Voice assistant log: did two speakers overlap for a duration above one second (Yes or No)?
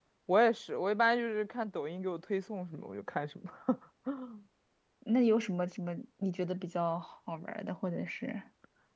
No